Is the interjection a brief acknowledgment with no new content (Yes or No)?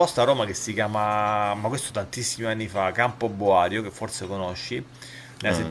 Yes